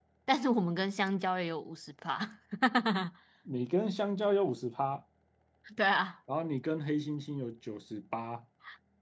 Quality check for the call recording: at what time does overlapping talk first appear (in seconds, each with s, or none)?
none